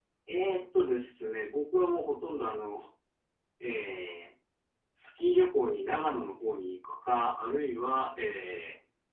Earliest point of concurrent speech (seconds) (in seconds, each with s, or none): none